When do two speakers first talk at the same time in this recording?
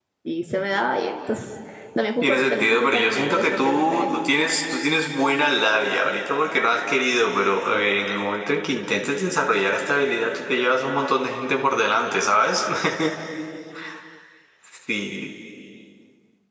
2.2 s

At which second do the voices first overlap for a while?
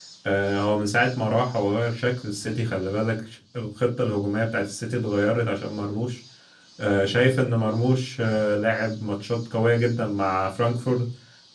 none

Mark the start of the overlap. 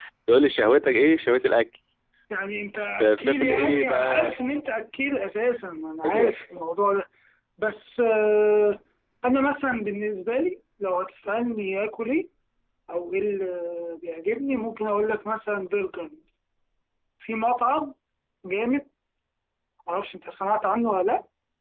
3.0 s

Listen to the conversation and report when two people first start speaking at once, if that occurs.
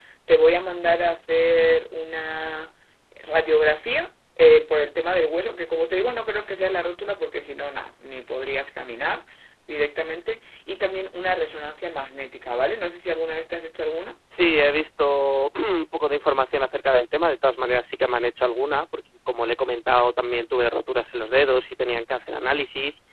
none

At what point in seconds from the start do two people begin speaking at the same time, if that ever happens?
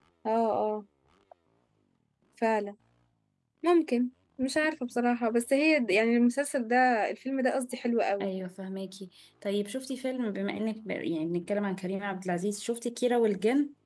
none

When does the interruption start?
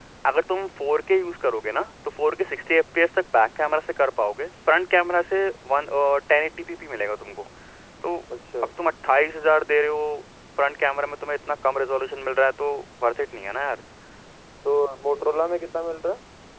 none

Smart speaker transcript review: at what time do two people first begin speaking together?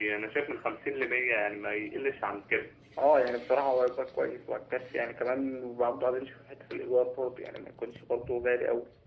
none

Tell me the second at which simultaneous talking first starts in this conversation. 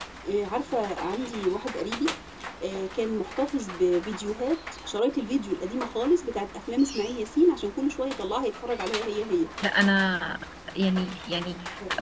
none

